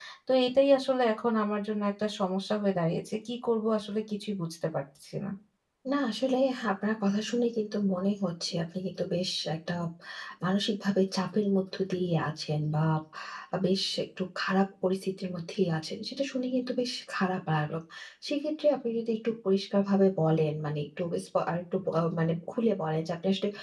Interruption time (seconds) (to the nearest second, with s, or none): none